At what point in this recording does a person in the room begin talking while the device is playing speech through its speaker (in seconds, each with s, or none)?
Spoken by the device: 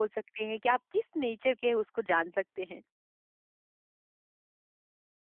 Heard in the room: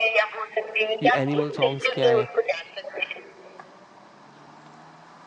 1.0 s